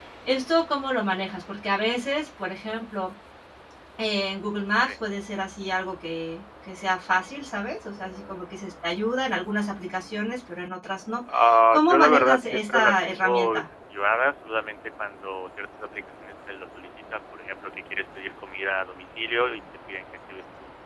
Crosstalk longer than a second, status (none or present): present